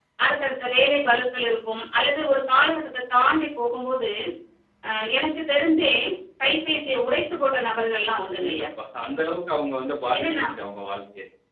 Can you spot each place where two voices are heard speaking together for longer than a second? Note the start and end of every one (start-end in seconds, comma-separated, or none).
none